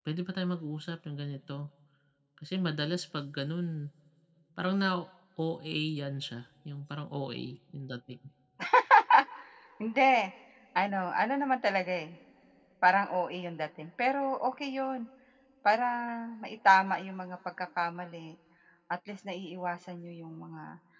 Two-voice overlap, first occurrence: none

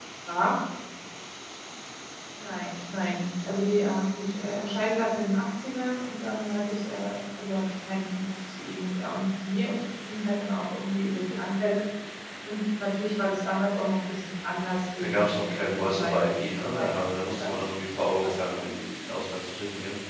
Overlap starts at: 15.0 s

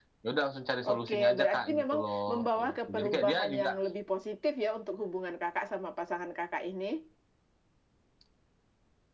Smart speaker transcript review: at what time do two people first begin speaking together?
0.8 s

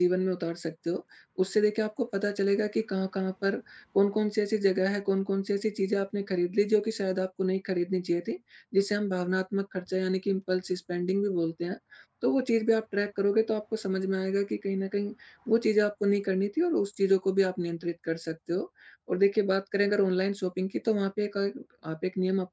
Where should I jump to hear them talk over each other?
none

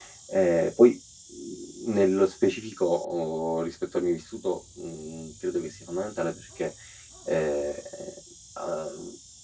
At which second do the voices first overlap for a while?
none

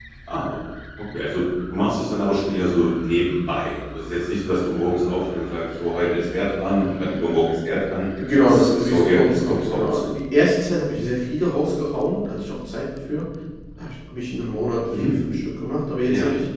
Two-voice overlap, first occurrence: 8.4 s

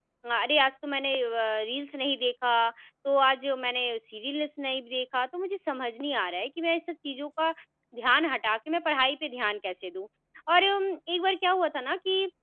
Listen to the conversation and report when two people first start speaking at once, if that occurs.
none

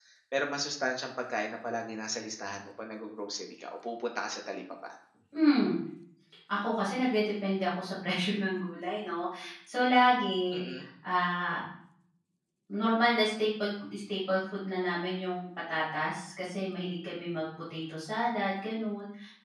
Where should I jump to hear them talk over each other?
none

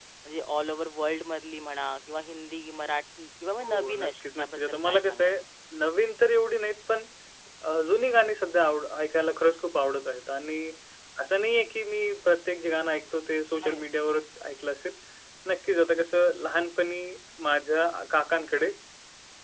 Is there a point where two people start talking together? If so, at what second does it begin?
3.6 s

